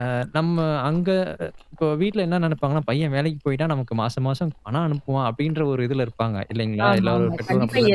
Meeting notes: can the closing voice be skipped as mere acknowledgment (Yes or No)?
No